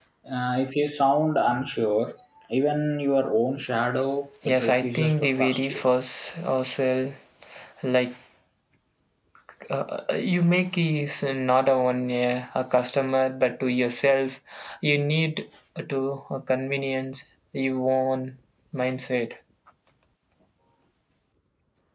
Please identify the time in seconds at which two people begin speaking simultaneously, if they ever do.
4.5 s

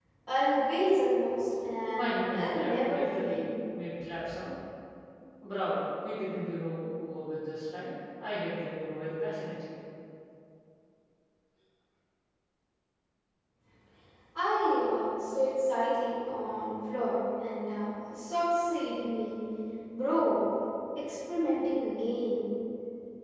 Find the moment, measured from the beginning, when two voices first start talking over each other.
1.9 s

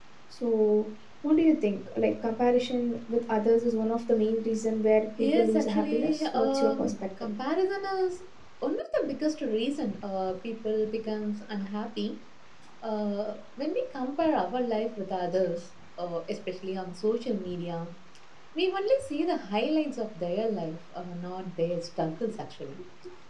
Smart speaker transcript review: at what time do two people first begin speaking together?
5.2 s

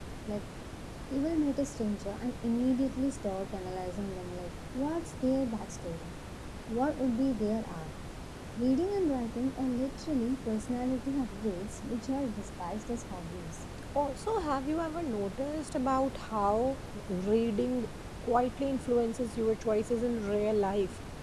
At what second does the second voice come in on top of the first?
none

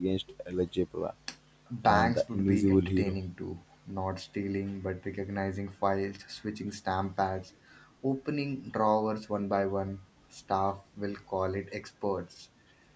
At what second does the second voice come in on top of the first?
1.8 s

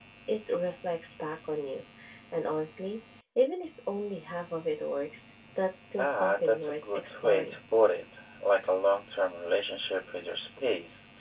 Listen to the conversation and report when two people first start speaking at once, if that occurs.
6.0 s

